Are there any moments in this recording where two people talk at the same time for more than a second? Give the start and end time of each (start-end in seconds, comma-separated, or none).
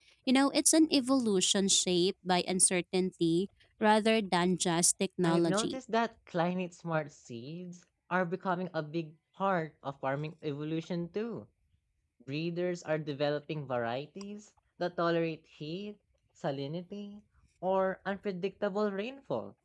none